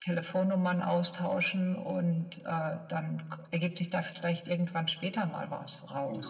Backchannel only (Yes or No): No